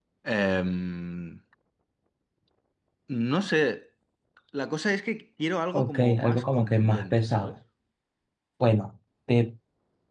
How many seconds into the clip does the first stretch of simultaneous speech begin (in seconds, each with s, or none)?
5.7 s